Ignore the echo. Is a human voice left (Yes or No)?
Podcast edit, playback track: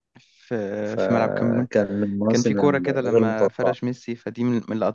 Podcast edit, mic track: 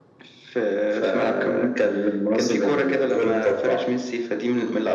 No